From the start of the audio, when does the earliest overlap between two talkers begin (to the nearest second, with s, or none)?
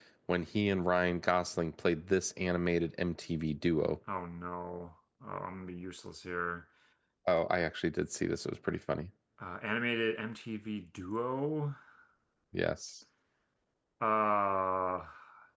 none